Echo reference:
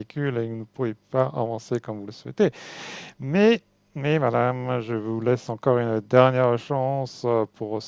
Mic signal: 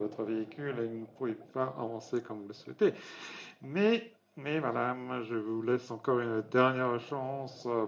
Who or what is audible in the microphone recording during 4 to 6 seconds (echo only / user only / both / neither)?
echo only